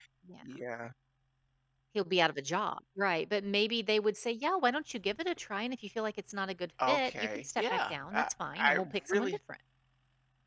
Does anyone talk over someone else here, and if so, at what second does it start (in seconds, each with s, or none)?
6.8 s